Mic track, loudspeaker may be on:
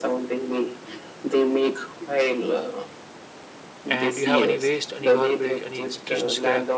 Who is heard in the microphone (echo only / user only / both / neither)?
both